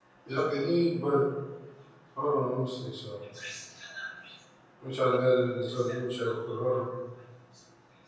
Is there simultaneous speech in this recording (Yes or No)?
No